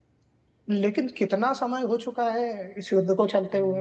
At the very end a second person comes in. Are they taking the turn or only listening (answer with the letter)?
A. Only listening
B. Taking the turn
B